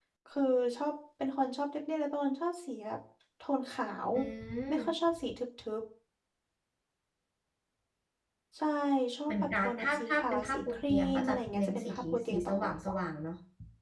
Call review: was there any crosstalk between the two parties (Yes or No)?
Yes